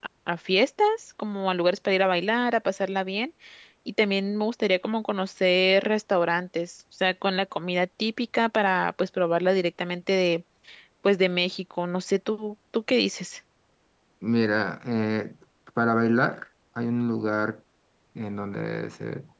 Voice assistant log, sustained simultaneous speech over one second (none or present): none